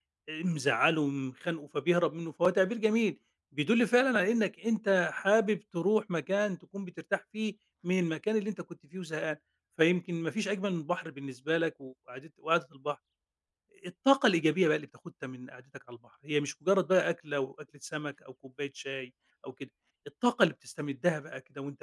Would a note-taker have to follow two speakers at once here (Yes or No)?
No